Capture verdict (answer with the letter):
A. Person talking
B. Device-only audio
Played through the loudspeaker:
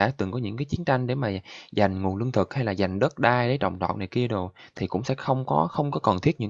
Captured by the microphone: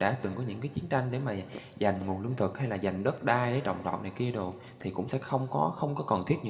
B